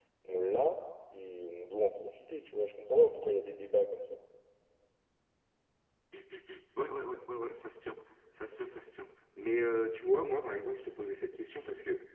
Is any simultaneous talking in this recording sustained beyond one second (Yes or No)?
No